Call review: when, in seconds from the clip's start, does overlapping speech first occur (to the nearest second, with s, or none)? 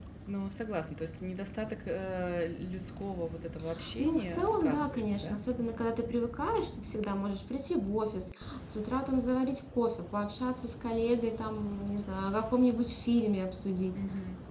4 s